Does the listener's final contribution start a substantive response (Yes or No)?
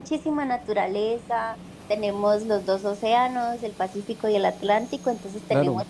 No